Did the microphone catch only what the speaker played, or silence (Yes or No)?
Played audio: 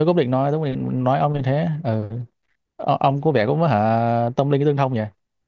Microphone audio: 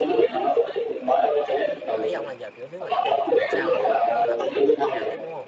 No